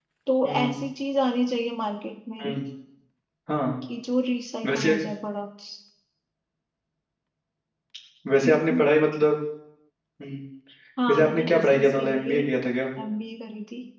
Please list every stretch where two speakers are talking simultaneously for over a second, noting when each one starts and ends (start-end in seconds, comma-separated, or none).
11.1-12.4